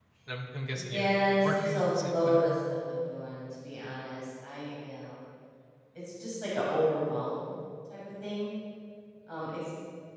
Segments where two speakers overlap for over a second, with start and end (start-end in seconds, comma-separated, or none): 0.7-2.4